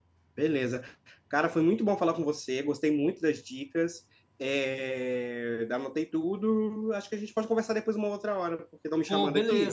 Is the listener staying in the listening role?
No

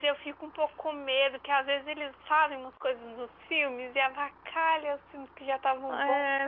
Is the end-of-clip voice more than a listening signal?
Yes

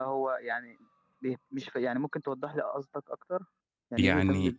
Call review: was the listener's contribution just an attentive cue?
No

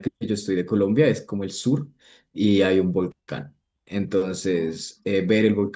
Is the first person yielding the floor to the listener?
No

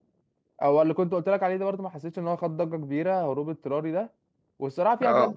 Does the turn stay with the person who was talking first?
Yes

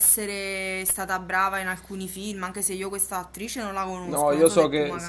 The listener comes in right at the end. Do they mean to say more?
Yes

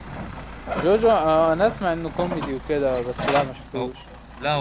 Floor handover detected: Yes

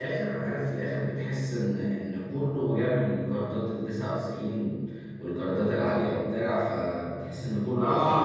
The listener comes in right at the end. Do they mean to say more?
Yes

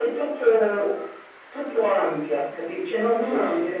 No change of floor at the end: Yes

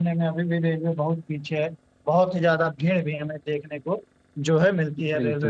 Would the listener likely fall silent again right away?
No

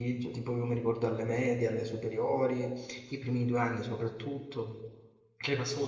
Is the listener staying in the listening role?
Yes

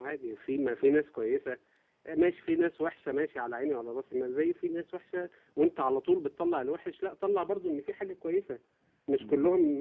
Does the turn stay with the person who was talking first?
Yes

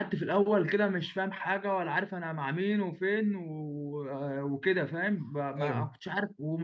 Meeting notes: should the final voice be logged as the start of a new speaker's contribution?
No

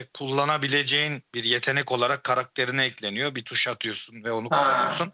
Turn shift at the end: No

